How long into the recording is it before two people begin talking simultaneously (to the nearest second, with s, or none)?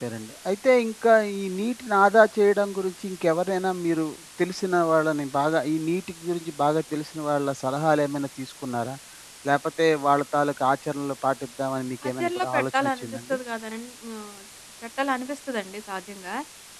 12 s